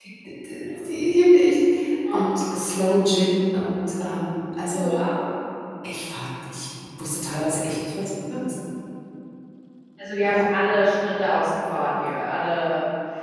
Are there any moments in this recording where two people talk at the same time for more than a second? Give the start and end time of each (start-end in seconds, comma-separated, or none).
none